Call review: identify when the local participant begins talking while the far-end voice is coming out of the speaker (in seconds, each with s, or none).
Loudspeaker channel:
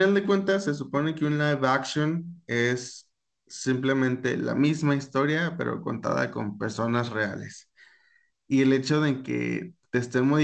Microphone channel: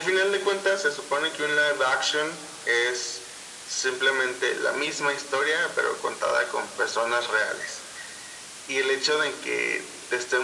none